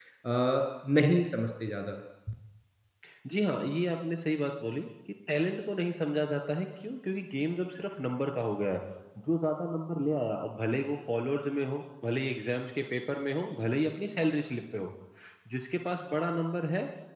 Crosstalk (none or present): none